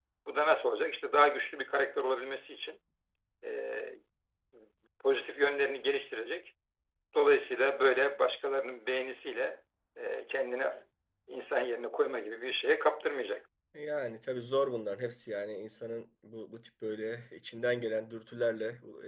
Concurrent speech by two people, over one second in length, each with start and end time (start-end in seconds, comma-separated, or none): none